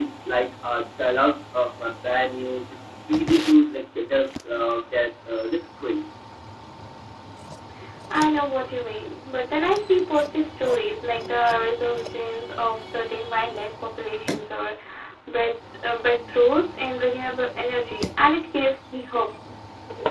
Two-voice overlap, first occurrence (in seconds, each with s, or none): none